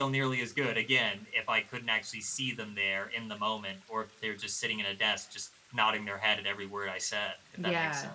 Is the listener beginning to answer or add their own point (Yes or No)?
Yes